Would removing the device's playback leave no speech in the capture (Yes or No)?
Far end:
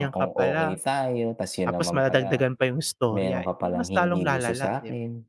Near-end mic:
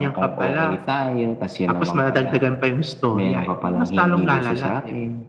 Yes